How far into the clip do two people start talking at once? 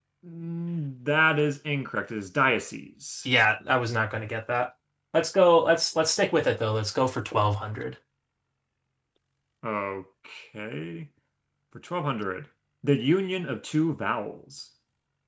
none

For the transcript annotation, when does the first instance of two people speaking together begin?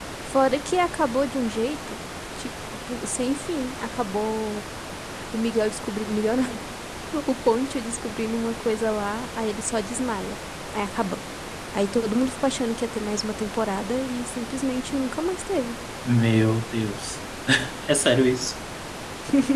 none

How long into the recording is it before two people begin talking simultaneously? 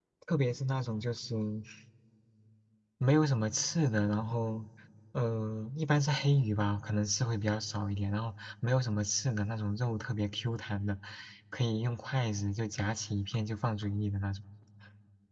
none

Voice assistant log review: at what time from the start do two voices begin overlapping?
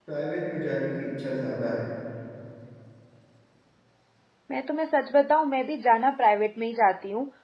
none

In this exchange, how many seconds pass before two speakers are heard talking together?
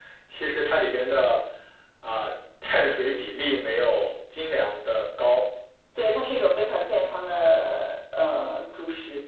none

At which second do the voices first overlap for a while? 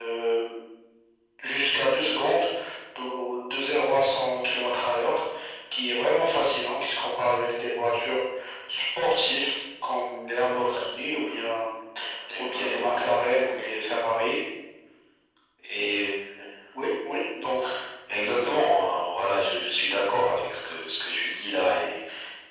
12 s

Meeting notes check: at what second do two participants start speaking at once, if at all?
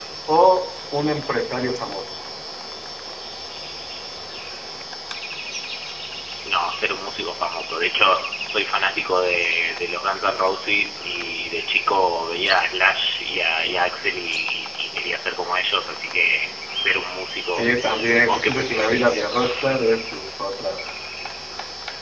18 s

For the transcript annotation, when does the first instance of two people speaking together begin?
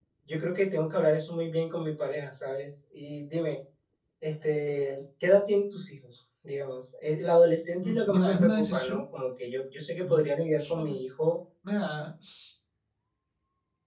8 s

